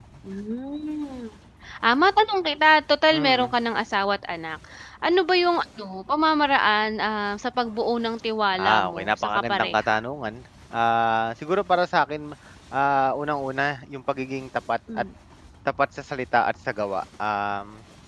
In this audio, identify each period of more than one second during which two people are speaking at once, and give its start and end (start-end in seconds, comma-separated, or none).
8.5-10.0